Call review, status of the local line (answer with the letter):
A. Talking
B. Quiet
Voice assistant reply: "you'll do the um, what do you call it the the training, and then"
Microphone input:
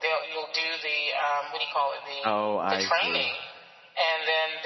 A